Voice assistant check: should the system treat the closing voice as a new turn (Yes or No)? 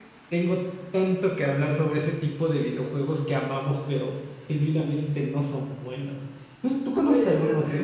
Yes